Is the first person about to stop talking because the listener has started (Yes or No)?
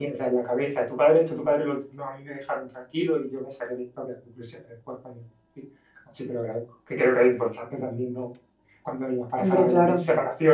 No